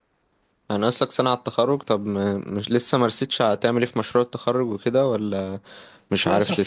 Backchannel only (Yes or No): No